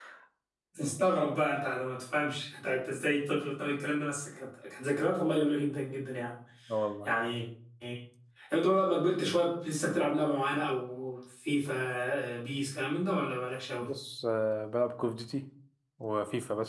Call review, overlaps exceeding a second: none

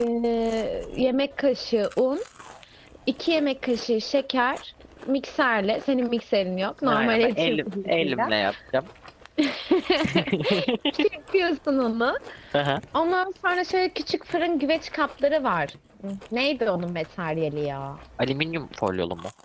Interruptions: present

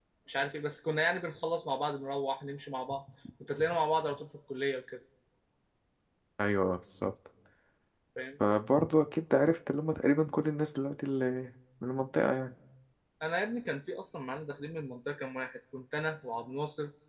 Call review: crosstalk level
none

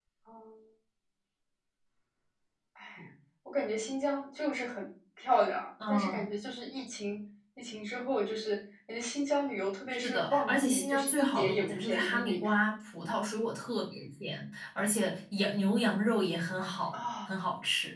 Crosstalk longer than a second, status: present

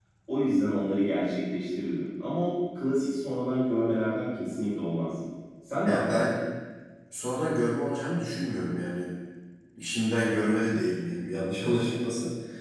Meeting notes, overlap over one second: none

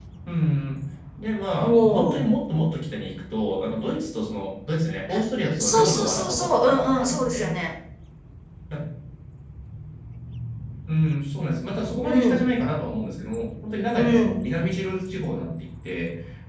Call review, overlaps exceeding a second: present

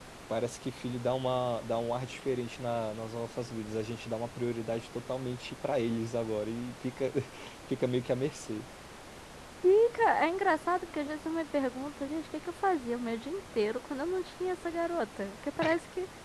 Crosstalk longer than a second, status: none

